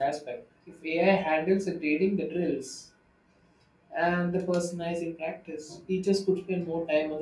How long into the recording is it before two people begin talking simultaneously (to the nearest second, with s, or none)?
none